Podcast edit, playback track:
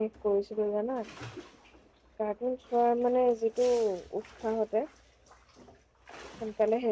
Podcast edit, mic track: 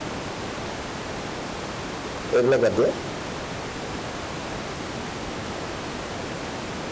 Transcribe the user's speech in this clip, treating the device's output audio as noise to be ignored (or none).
এইবিলাক বাদ দিয়ে